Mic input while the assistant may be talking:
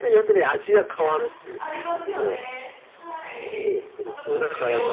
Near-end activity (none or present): present